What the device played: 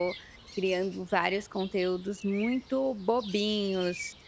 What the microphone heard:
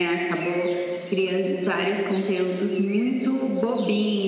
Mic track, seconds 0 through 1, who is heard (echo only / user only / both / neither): echo only